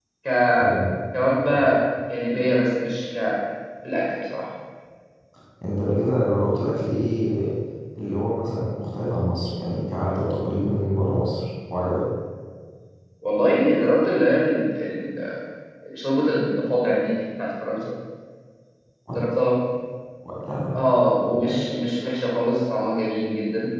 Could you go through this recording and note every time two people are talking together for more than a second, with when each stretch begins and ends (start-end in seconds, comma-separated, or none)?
none